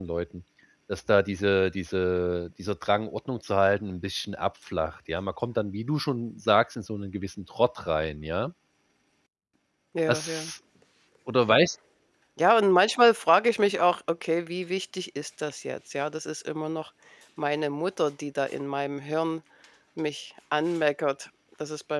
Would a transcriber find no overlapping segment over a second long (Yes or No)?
Yes